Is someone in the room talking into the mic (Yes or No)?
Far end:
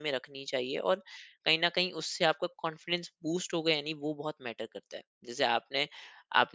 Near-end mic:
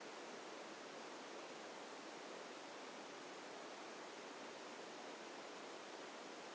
No